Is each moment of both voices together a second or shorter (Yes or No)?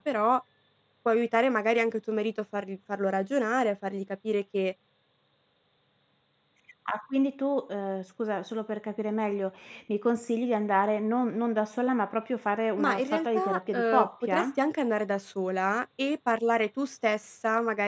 No